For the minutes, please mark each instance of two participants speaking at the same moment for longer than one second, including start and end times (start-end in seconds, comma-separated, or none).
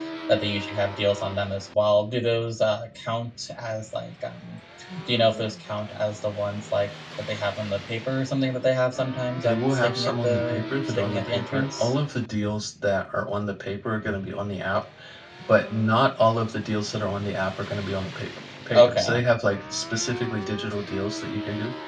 9.4-11.9